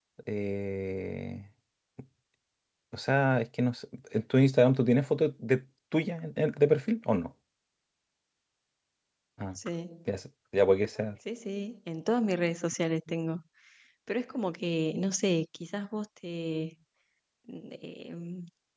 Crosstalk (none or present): none